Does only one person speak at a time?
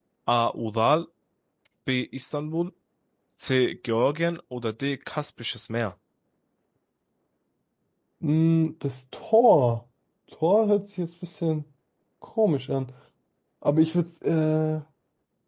Yes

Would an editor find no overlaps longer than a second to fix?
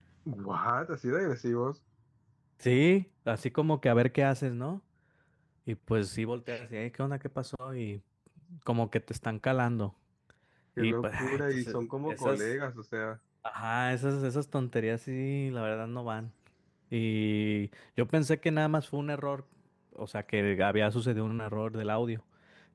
No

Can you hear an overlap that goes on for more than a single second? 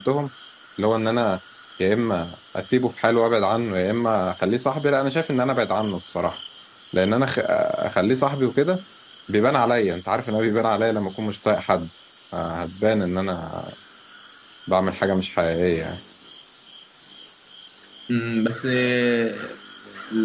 No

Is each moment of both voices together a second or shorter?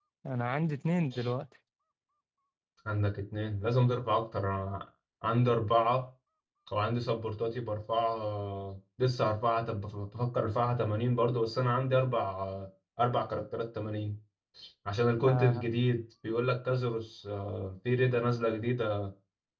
Yes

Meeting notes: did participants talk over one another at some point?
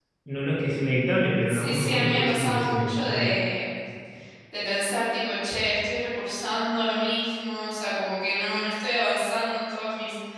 Yes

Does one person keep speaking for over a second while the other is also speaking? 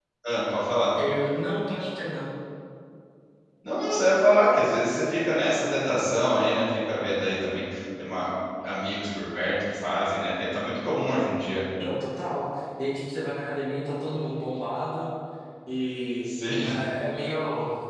No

